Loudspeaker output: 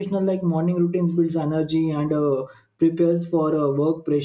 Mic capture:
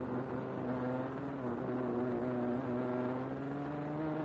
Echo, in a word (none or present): none